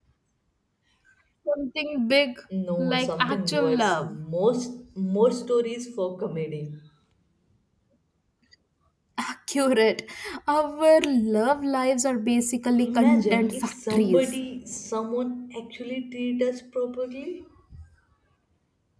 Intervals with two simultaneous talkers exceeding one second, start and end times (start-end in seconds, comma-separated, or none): 2.8-4.2, 12.8-14.4